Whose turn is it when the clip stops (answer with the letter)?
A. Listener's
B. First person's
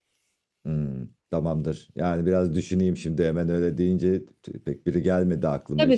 A